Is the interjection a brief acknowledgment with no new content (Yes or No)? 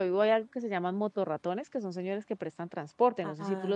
No